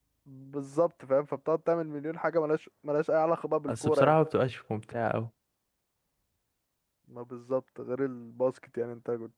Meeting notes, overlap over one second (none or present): none